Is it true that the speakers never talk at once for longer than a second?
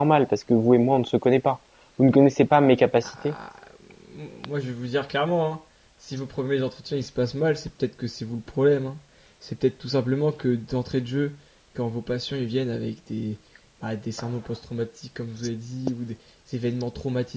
Yes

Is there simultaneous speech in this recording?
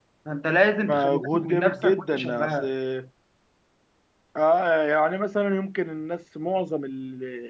Yes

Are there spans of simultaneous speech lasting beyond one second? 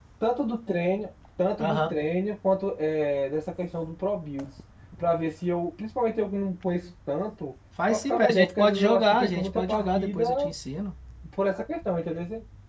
Yes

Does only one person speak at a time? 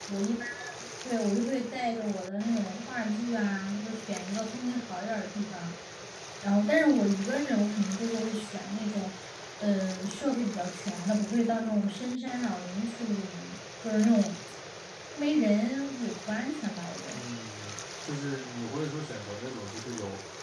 Yes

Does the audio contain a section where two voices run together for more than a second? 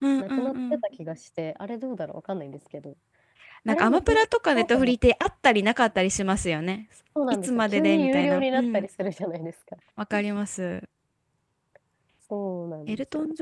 Yes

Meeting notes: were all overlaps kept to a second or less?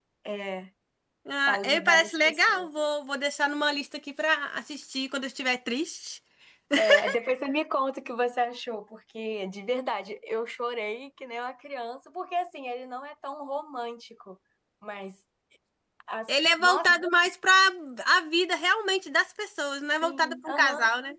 No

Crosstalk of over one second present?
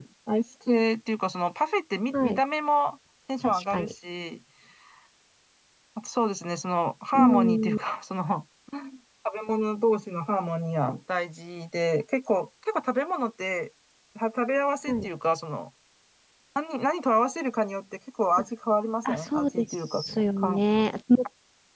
Yes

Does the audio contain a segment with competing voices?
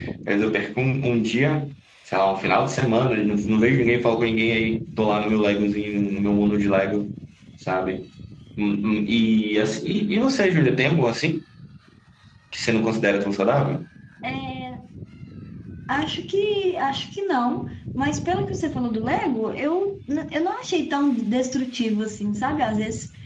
No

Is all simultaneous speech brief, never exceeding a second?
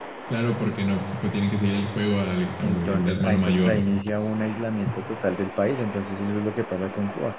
No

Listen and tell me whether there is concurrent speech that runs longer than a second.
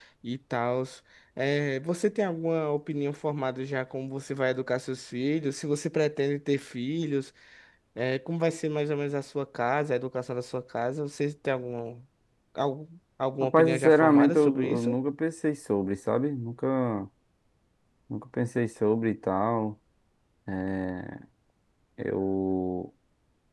Yes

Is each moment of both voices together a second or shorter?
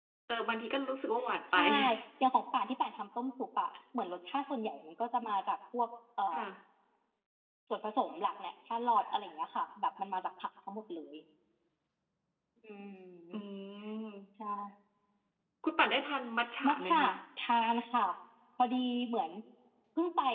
Yes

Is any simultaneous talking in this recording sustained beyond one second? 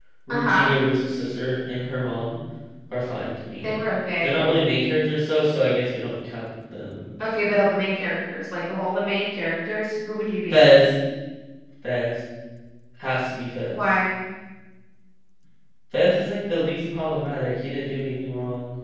No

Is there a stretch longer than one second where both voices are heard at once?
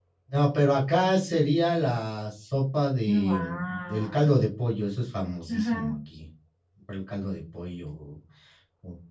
Yes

